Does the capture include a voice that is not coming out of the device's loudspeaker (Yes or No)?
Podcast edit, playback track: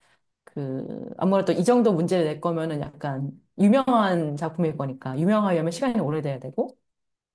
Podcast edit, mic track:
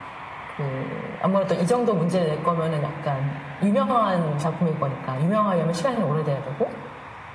No